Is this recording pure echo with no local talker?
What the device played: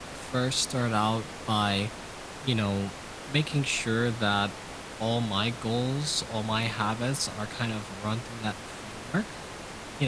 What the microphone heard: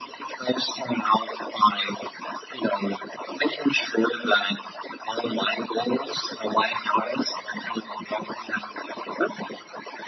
Yes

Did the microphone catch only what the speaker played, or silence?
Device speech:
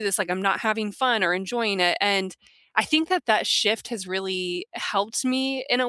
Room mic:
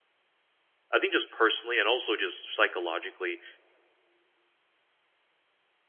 No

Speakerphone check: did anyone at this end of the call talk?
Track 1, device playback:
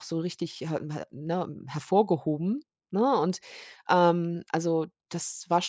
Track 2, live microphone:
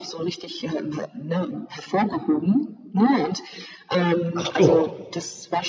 Yes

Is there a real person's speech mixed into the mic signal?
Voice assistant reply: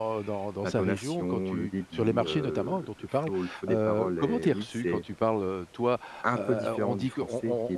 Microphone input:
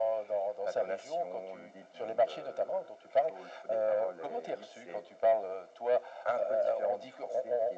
No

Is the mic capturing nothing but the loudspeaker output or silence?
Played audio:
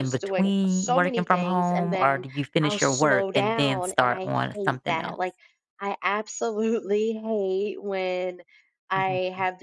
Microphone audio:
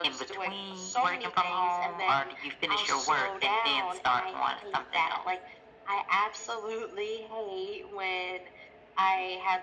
Yes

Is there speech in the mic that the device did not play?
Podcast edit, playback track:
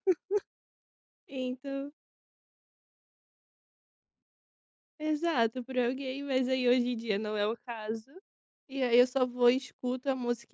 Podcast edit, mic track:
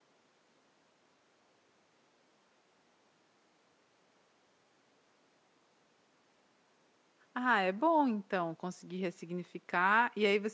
Yes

